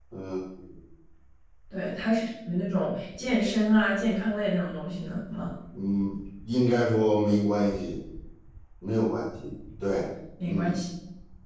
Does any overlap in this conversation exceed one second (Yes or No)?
No